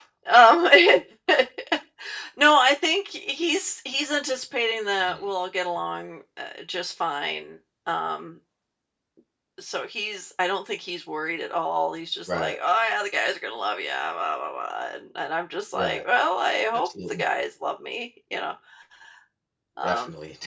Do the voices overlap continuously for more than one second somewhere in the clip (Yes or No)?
No